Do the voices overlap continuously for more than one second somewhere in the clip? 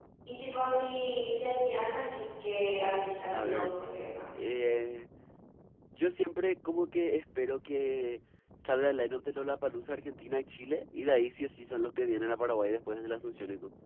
No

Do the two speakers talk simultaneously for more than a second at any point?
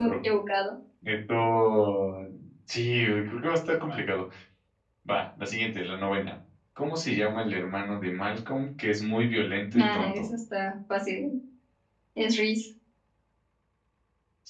No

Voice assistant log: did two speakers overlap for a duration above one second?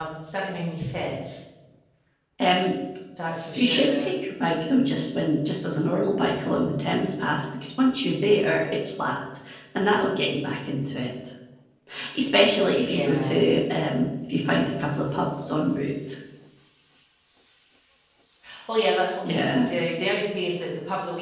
No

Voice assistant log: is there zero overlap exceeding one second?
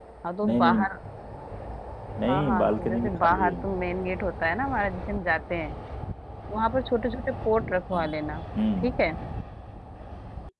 No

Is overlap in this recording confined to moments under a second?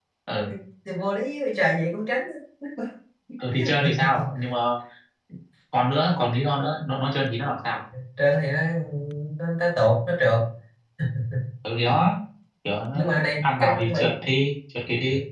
No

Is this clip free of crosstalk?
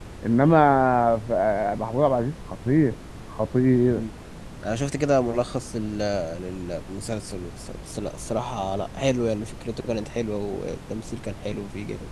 Yes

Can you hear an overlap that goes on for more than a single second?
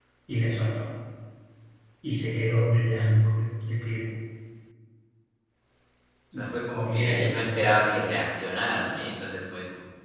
Yes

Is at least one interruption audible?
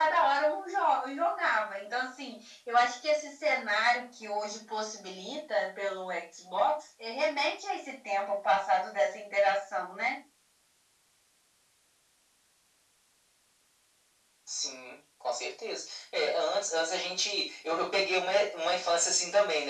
No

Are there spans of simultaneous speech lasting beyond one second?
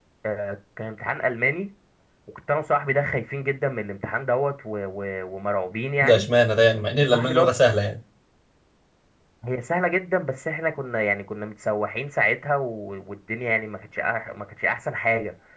No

